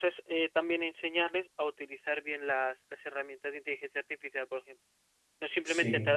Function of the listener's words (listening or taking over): listening